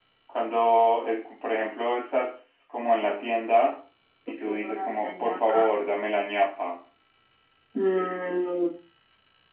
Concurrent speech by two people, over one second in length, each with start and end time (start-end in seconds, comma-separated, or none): 4.5-5.7